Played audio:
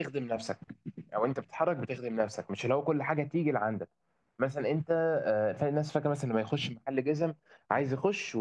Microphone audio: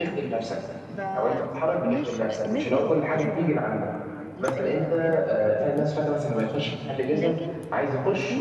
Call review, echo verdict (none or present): present